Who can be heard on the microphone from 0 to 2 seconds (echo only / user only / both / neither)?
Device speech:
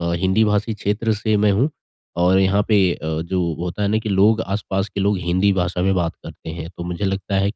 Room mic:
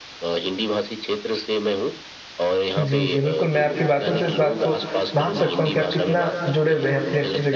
echo only